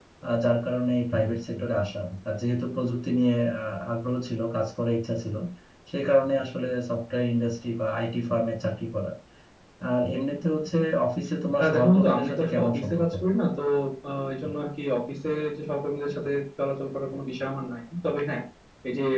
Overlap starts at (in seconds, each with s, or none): 11.6 s